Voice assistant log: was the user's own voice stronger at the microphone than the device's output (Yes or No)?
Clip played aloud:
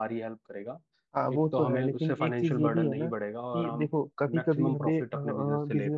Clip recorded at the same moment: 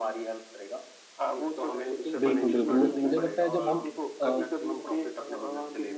Yes